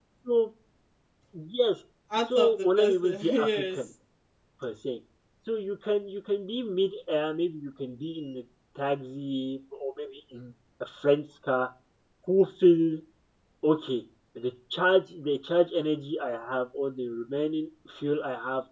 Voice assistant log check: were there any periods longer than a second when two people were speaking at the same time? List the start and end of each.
2.4-3.8

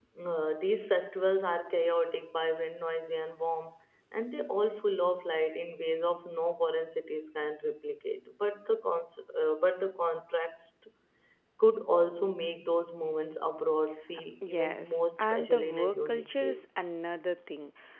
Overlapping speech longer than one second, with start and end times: 14.5-16.6

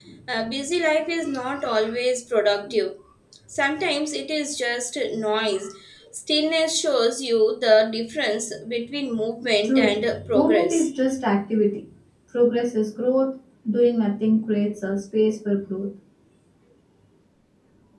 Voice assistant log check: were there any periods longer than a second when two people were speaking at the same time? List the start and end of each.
9.6-10.9

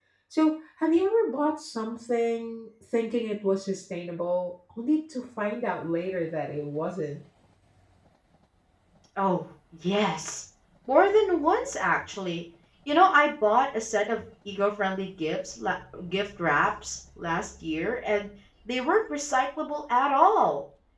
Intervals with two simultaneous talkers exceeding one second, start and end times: none

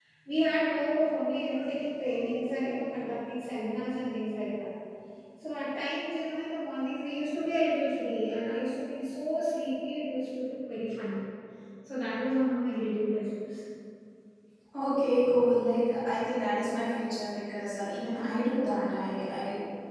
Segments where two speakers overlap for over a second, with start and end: none

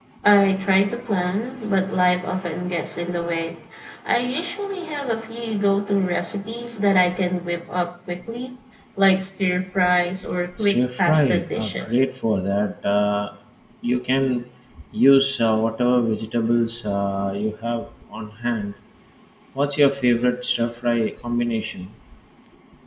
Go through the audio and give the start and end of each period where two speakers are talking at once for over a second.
10.6-12.0

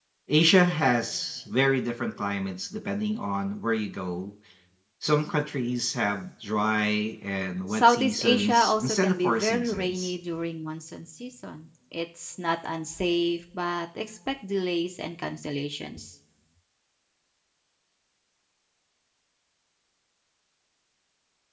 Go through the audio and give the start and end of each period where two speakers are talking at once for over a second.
7.7-10.1

